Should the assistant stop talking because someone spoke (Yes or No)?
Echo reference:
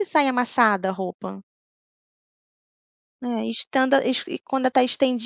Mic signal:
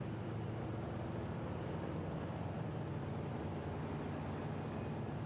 No